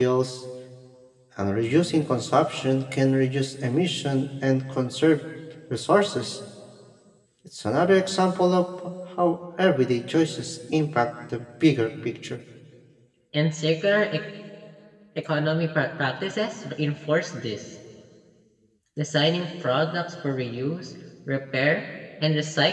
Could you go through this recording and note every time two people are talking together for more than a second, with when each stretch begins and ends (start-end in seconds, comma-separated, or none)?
none